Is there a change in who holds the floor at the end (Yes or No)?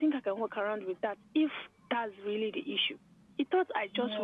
No